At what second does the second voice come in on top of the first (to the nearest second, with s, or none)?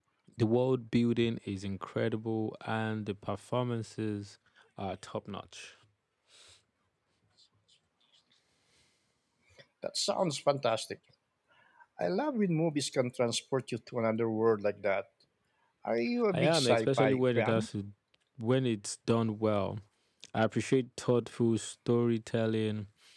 16 s